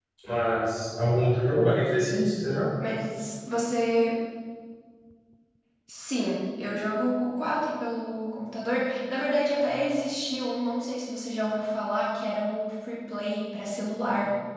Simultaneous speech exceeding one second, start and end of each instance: none

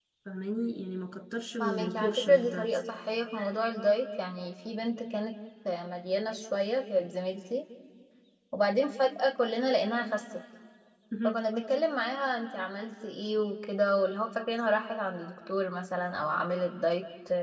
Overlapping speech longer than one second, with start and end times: 1.6-2.8

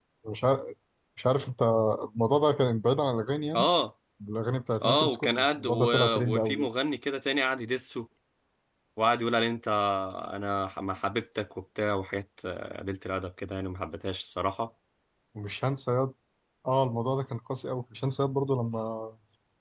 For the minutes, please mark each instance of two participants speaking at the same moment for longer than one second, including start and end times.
4.8-6.7

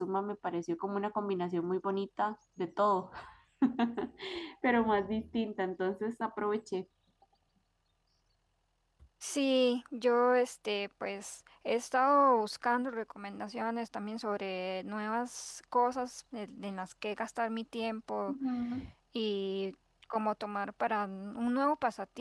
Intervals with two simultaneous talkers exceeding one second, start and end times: none

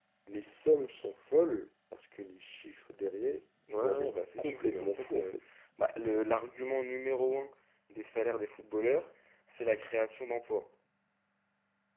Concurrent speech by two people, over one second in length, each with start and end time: 3.8-5.3

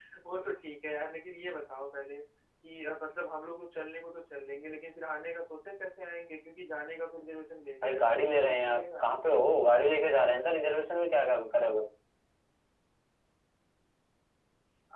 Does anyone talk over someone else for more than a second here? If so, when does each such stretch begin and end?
7.8-9.1

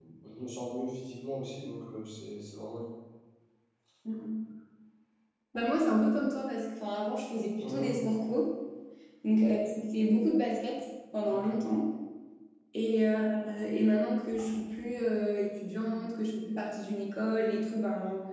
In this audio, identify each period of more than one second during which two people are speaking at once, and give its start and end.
none

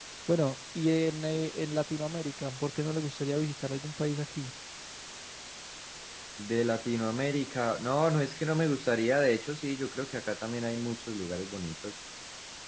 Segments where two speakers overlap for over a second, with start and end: none

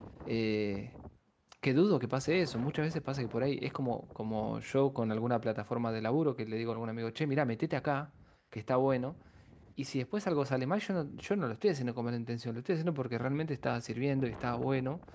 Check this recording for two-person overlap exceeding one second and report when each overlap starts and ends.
none

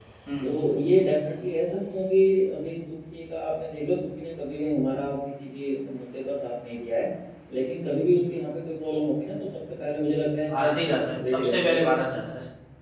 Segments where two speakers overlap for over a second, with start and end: 10.5-11.9

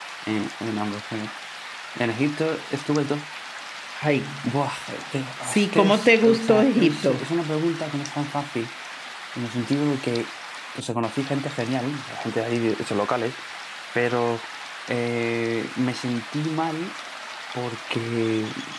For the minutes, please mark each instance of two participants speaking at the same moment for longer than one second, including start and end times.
5.5-7.2

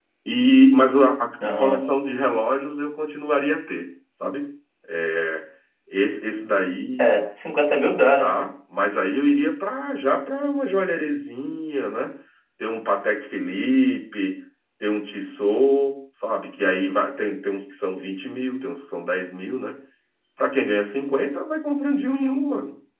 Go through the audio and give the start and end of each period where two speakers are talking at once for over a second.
none

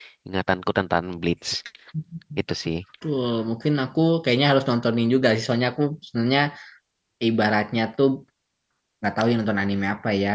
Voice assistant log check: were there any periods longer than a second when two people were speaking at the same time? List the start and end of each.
none

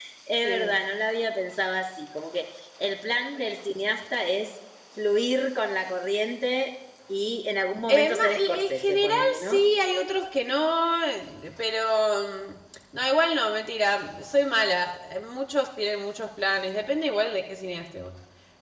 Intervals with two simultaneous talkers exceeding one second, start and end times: 7.9-9.6

